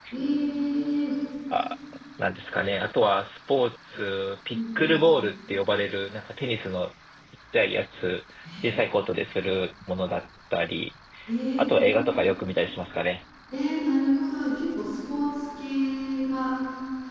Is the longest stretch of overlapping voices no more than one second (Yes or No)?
Yes